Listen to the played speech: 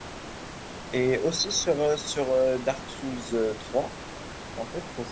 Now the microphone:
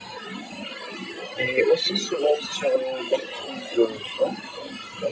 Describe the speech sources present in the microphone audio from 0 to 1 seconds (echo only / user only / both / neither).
neither